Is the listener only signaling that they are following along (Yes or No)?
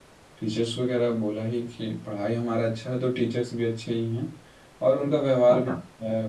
Yes